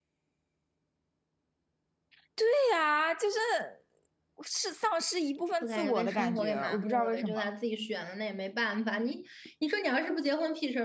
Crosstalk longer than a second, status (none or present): present